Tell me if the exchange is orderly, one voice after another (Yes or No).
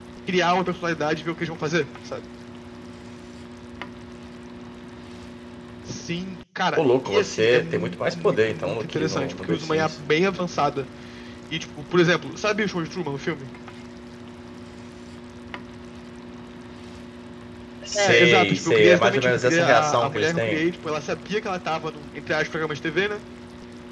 No